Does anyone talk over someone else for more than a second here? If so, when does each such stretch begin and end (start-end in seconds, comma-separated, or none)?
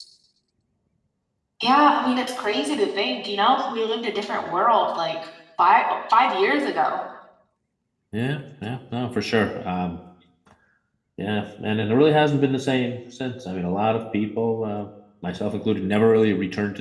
none